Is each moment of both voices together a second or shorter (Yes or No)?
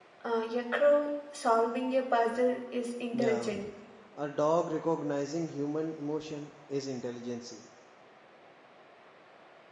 Yes